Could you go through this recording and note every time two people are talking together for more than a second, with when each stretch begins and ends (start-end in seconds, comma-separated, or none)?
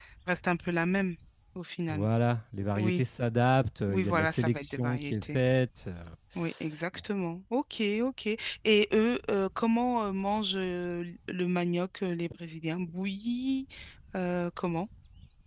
3.9-5.4